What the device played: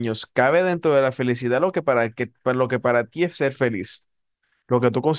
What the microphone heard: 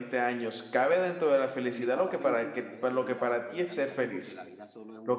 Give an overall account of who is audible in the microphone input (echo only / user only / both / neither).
both